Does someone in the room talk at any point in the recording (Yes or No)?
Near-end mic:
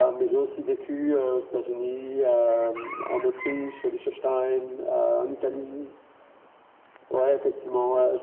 No